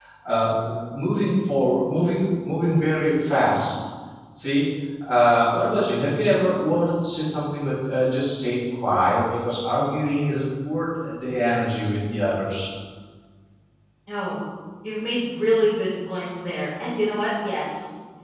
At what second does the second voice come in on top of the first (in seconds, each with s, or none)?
none